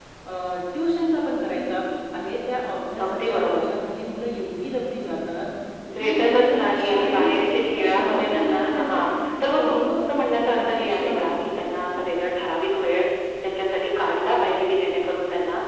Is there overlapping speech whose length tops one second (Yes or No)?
Yes